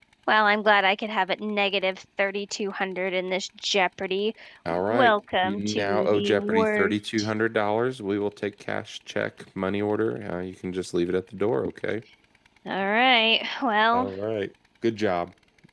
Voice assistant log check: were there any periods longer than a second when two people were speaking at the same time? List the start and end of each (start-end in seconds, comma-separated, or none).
4.9-7.0